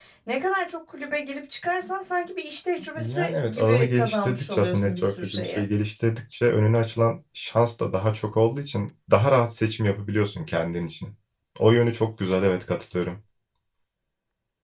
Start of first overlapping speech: 3.0 s

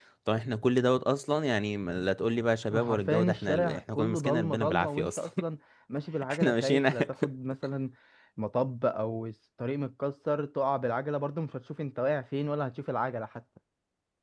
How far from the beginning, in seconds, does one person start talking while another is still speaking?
2.7 s

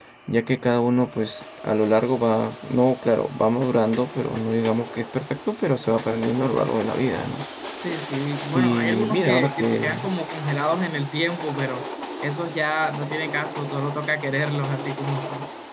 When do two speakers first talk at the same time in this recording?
8.5 s

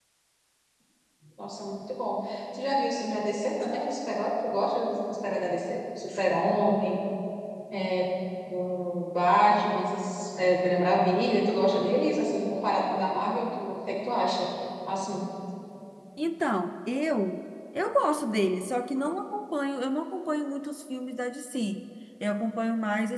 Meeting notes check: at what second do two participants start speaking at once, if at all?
none

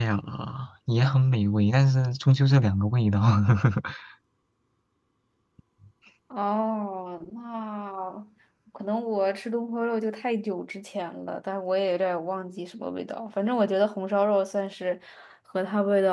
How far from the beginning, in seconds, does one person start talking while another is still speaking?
none

